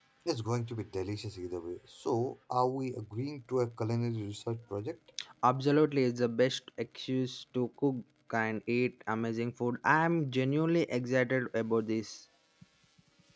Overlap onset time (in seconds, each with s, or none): none